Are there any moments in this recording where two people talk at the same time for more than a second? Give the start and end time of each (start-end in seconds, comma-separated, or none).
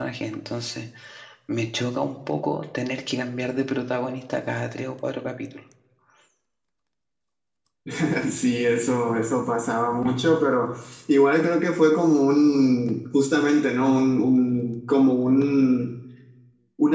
none